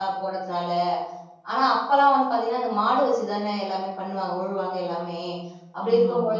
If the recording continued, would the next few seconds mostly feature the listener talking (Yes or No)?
No